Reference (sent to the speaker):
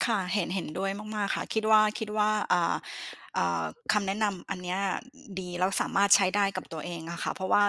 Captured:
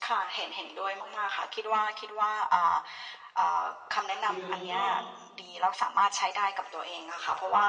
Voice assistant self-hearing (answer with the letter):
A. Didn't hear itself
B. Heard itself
B